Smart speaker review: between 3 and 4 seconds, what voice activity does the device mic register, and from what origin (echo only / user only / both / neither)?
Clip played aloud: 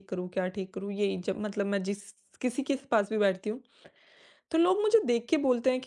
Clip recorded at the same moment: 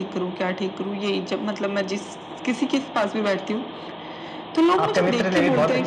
echo only